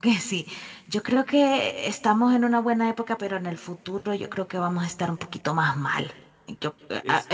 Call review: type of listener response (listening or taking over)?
listening